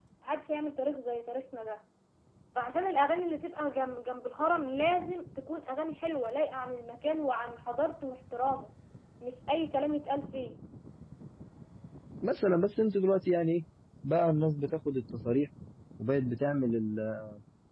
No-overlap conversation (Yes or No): Yes